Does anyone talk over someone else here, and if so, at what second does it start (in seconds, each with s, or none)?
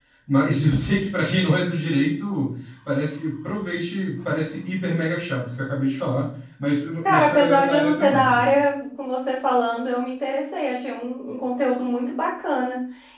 7.0 s